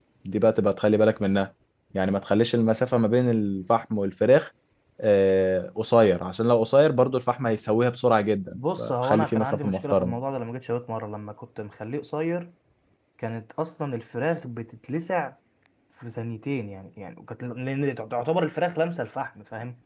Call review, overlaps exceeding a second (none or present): present